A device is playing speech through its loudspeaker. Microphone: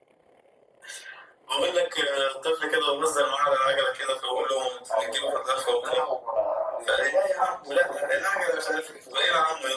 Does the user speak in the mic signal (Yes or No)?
No